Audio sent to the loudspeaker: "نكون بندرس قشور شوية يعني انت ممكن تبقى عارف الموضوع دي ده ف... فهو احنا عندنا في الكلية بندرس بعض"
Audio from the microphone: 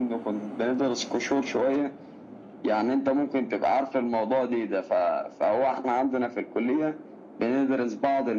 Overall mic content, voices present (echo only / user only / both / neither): echo only